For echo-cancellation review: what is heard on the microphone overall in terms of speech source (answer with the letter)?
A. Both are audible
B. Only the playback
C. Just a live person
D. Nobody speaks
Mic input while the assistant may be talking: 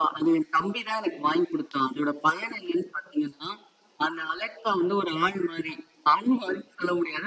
B